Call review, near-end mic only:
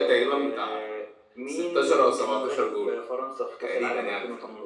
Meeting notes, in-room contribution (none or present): none